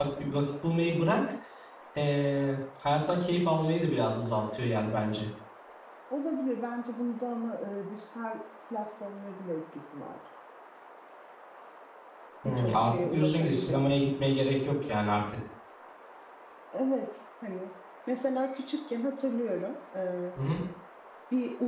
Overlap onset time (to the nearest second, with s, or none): 12 s